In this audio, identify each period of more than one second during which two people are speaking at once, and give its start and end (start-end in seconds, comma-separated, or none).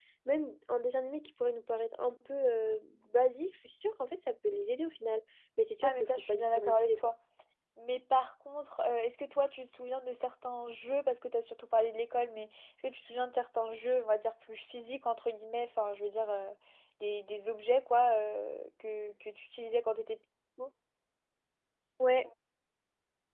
5.8-7.1